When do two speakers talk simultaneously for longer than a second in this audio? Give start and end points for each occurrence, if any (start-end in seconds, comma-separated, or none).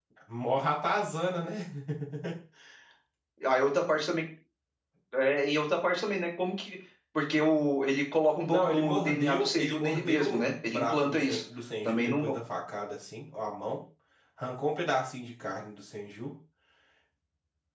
8.4-11.4